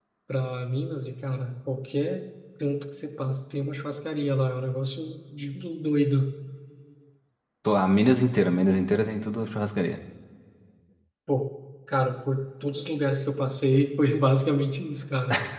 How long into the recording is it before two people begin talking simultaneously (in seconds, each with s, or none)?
none